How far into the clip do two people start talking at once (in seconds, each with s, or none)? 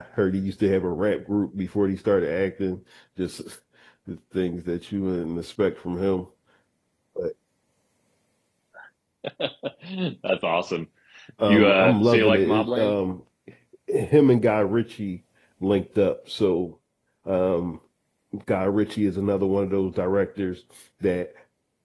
11.5 s